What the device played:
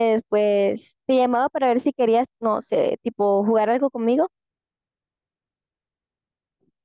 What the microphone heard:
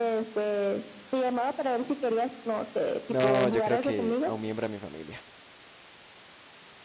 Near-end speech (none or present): present